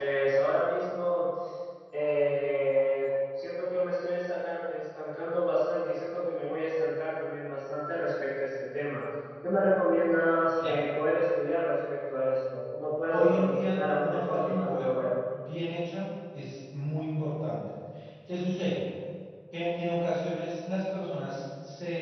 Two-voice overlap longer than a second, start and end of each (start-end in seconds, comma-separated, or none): 13.1-15.0